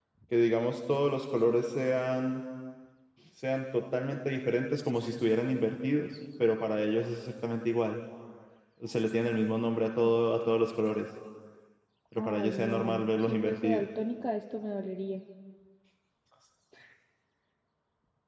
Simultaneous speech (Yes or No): Yes